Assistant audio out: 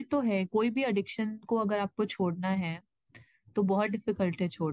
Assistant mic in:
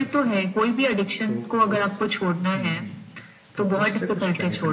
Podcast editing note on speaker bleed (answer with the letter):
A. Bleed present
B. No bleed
A